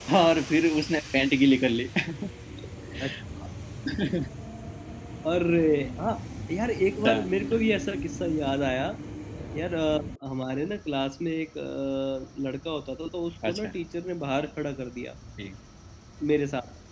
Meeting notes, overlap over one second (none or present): none